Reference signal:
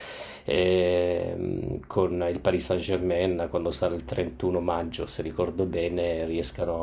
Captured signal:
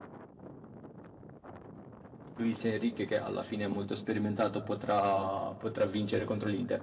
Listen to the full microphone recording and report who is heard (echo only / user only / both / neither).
user only